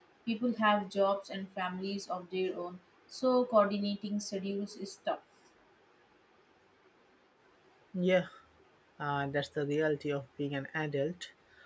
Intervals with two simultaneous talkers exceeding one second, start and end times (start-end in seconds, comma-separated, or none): none